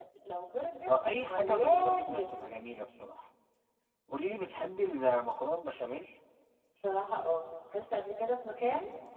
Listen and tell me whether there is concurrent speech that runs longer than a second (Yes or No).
Yes